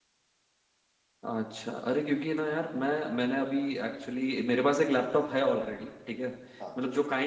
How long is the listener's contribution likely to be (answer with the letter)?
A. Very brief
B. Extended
A